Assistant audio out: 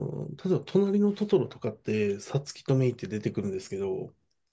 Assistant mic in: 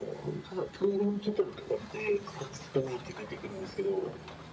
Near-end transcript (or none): none